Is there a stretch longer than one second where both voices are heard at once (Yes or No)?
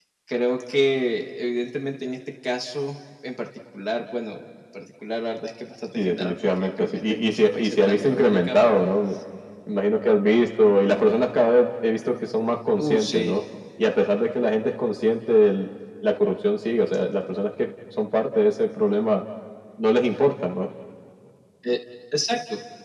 Yes